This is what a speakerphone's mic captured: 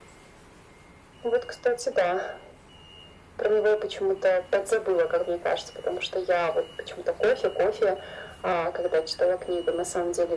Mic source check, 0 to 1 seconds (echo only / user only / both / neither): neither